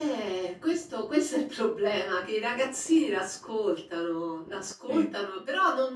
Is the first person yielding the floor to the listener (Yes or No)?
No